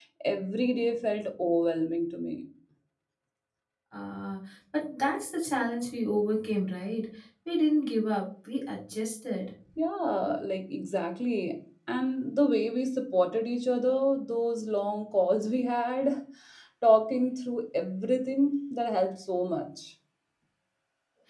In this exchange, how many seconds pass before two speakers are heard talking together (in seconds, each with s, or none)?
none